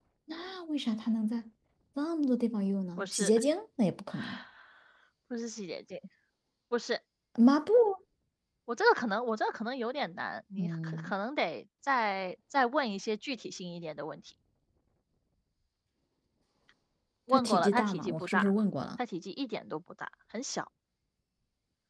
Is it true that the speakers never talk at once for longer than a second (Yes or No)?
No